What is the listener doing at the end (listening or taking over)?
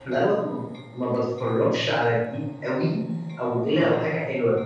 listening